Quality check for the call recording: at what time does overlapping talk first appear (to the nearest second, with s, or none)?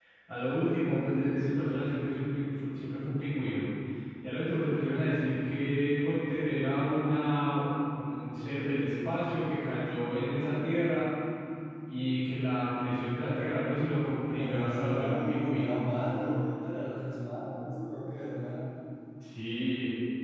14 s